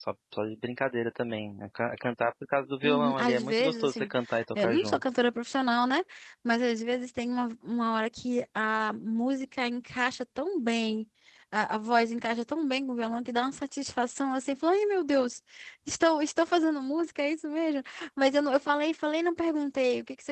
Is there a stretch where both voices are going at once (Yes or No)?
Yes